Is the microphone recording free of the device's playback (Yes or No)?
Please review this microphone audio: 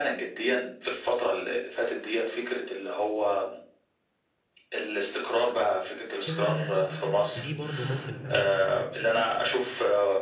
No